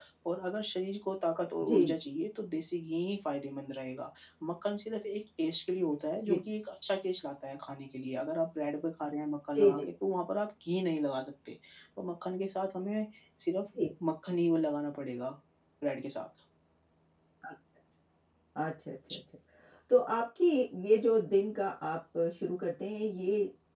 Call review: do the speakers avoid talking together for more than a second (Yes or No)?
Yes